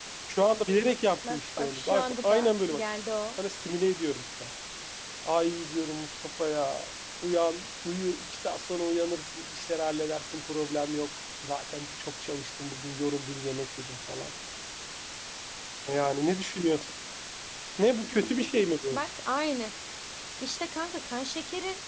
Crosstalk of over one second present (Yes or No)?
Yes